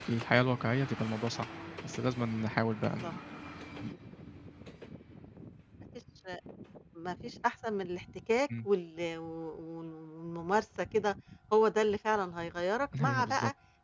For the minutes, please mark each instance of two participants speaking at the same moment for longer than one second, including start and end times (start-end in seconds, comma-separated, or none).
none